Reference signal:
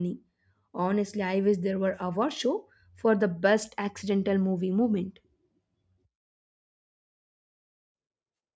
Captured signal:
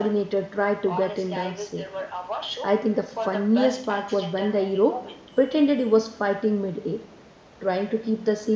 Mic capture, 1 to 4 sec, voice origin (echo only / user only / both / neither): both